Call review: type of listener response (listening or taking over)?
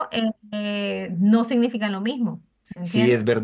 taking over